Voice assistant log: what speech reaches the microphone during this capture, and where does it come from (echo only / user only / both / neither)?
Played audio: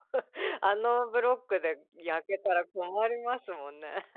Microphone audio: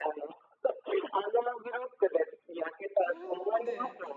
both